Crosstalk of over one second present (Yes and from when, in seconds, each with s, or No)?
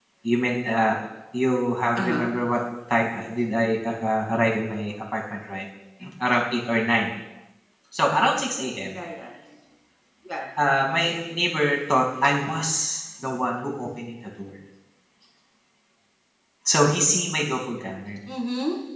No